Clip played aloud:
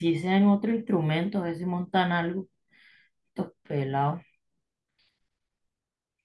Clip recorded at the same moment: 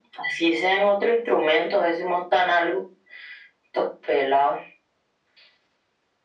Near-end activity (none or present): none